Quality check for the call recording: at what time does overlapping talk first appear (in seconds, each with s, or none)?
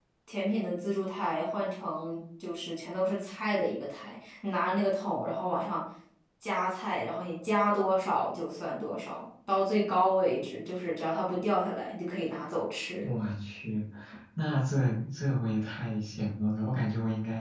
none